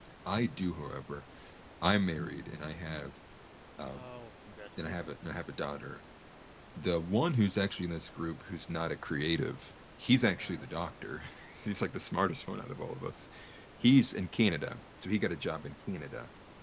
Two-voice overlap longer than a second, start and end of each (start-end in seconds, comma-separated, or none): none